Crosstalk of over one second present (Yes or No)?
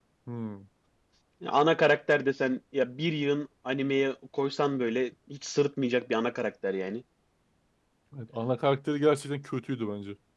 No